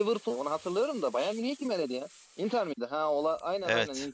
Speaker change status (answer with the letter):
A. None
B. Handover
B